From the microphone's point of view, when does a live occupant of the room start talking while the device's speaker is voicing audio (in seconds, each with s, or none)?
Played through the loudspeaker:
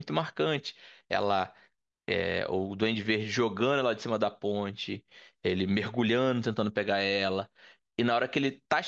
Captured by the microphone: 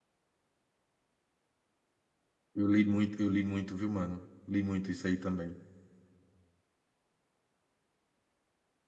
2.5 s